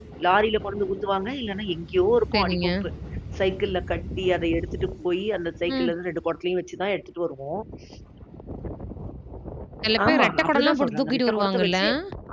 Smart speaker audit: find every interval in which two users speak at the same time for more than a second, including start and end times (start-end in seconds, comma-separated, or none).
10.1-11.8